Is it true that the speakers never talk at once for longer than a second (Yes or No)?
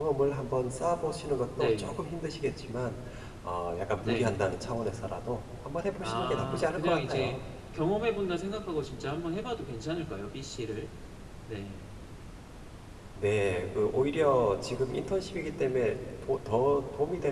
No